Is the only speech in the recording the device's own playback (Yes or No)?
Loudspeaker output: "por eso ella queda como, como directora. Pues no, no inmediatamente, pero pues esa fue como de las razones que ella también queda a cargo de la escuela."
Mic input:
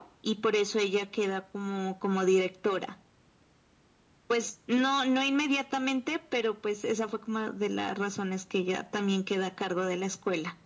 Yes